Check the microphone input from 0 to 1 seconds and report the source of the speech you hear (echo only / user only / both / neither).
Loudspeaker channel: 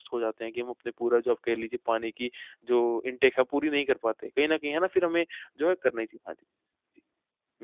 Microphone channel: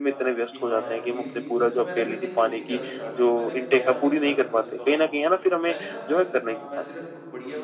both